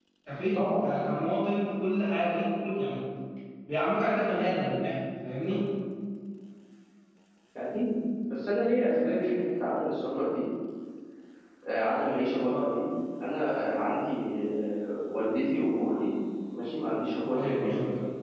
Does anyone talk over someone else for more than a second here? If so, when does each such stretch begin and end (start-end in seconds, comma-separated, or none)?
none